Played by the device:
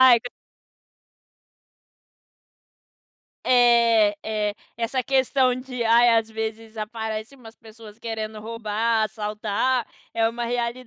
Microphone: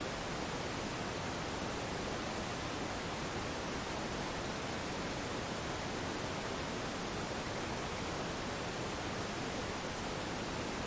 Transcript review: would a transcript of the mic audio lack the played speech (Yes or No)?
Yes